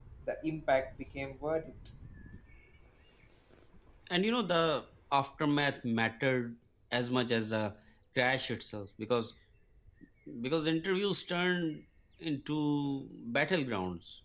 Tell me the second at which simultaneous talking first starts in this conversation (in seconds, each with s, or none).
none